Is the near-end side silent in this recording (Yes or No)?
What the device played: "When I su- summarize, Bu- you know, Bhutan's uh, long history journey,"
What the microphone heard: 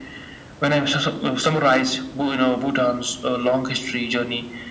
Yes